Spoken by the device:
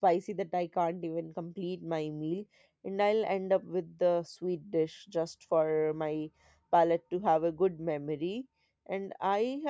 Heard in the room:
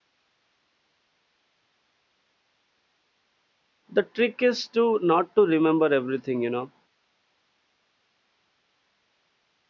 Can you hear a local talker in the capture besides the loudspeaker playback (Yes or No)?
Yes